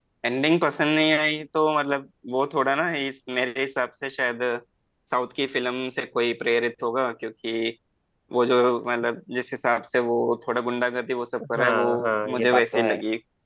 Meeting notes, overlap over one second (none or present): present